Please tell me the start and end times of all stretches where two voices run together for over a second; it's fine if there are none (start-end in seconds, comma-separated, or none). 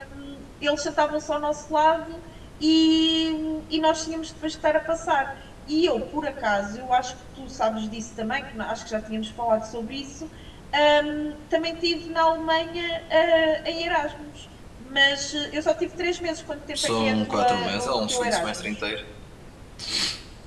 16.7-18.7